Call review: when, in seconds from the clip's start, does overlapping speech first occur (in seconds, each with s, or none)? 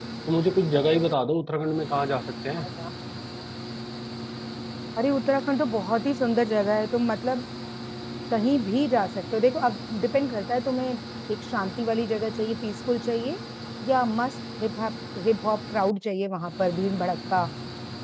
none